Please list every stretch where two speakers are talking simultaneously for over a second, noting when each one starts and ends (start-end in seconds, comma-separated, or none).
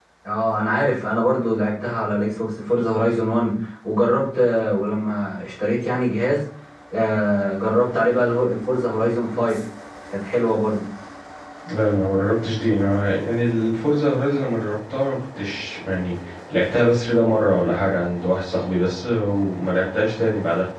none